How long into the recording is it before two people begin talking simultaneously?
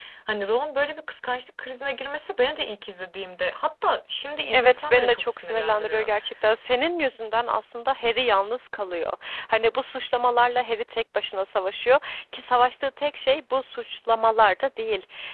4.5 s

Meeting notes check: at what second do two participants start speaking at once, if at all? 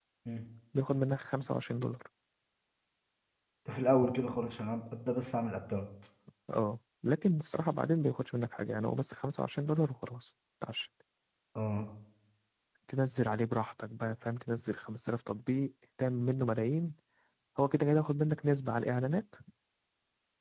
none

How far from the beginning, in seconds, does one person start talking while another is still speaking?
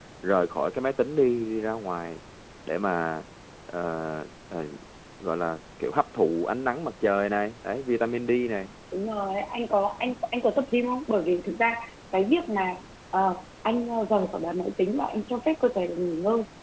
none

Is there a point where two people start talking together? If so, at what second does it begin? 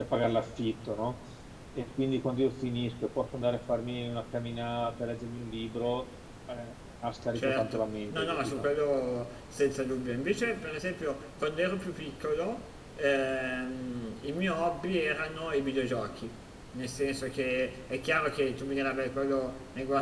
7.4 s

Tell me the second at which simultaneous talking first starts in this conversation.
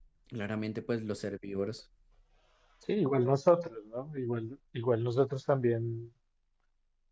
none

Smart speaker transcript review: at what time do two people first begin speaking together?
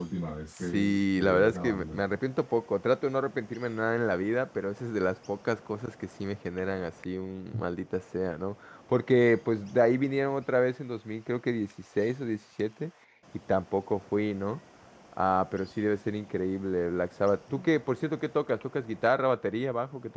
0.6 s

